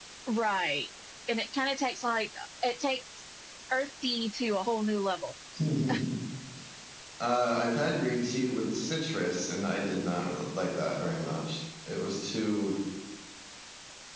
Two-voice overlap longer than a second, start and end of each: none

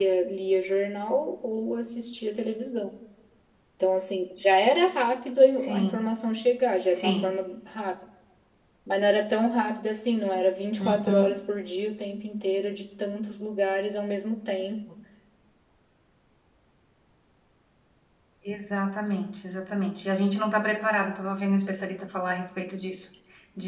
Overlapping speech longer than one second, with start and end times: none

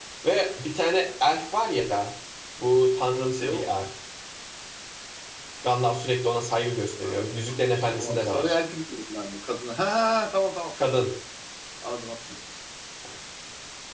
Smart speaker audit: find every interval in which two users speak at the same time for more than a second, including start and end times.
7.0-8.6

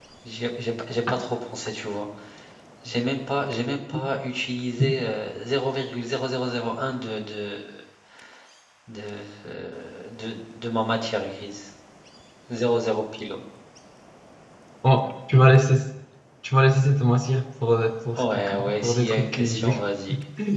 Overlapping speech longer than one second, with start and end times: 18.4-19.6

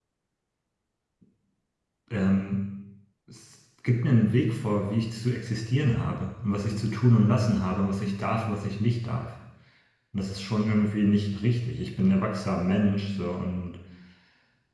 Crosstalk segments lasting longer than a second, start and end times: none

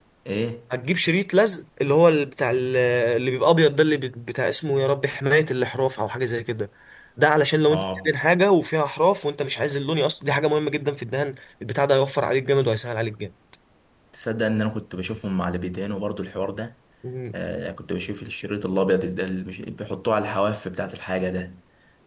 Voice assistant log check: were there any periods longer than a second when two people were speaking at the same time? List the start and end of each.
none

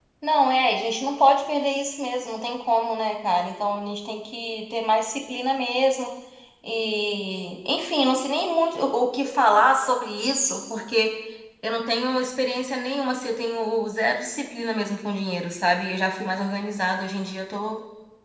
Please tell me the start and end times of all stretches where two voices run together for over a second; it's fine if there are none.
none

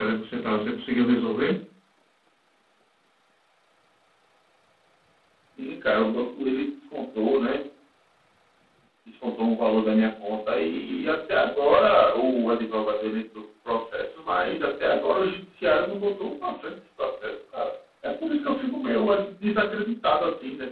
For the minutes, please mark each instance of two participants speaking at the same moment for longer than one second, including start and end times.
none

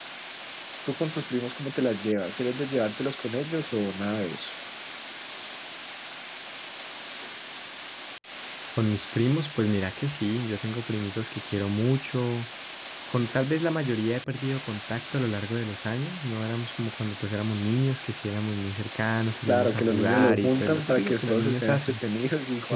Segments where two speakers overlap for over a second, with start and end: 19.5-22.0

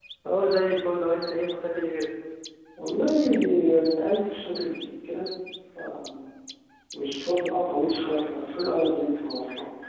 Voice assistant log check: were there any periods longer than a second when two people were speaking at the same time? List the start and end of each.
none

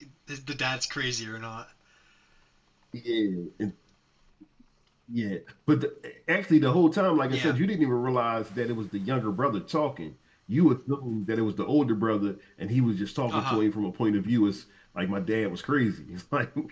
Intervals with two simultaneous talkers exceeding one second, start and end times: none

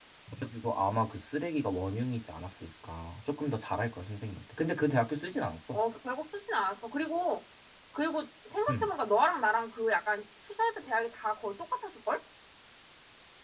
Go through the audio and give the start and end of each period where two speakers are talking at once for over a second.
none

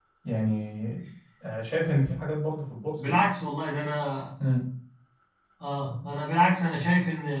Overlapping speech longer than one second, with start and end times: none

